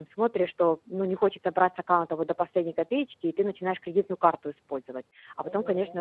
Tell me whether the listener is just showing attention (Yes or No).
Yes